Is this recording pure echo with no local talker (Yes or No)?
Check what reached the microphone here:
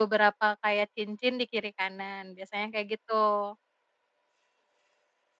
No